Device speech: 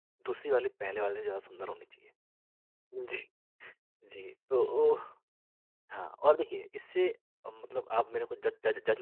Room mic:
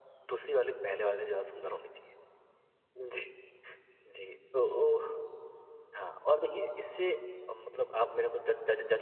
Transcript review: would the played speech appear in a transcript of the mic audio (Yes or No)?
Yes